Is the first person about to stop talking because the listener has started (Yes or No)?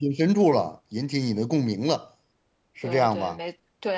Yes